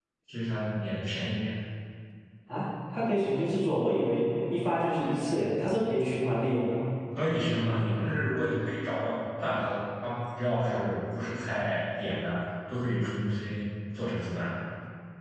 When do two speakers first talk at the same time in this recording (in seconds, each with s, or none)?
none